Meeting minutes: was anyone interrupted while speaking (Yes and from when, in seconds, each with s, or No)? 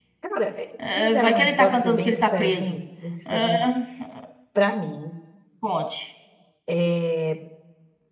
Yes, from 0.9 s